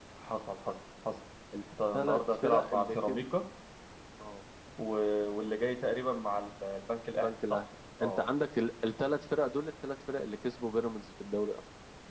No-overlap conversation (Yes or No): No